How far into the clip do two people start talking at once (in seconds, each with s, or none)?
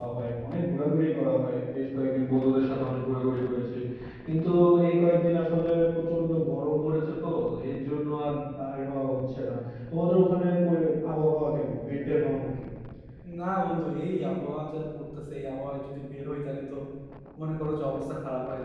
none